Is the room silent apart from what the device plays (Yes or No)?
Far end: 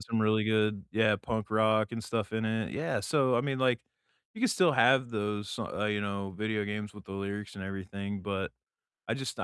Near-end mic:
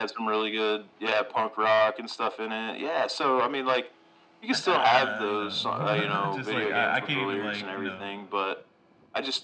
No